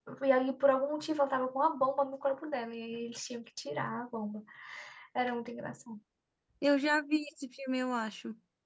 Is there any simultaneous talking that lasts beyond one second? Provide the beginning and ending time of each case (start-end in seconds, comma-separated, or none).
none